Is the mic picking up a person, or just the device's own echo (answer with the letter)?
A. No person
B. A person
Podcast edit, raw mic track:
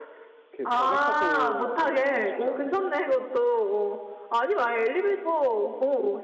B